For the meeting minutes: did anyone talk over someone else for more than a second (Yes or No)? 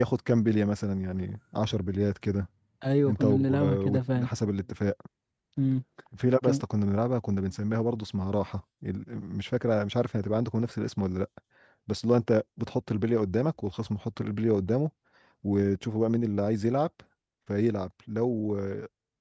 Yes